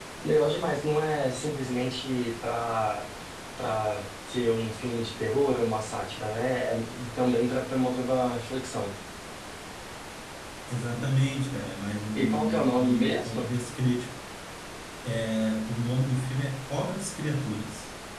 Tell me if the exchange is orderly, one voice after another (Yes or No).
No